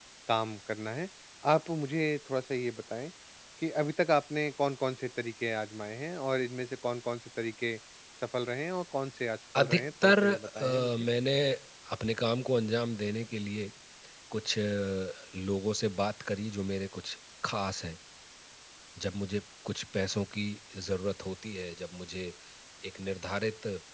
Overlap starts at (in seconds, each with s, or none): 9.6 s